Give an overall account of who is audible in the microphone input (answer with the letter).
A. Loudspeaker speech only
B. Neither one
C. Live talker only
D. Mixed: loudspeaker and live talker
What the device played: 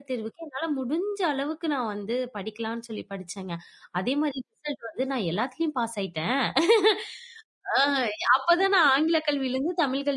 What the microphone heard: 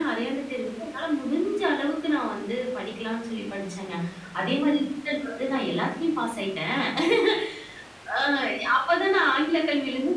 A